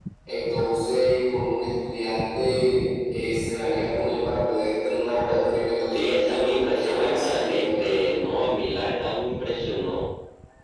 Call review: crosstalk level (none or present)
present